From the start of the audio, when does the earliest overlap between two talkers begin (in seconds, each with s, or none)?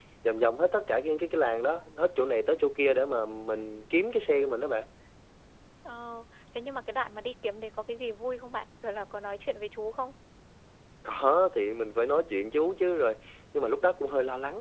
none